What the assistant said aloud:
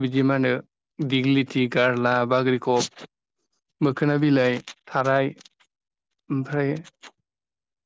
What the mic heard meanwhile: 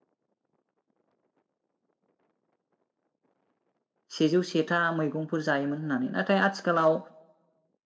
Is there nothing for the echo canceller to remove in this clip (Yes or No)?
Yes